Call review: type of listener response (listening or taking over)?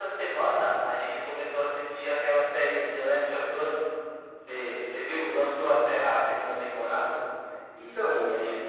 listening